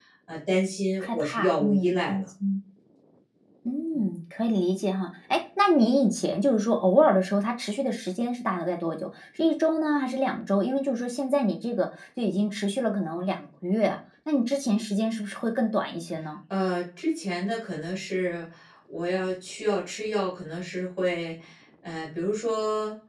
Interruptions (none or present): present